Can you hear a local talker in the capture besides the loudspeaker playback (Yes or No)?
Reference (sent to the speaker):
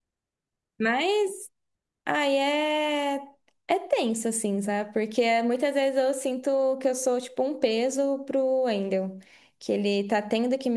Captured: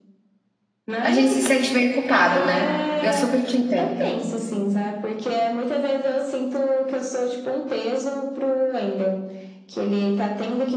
Yes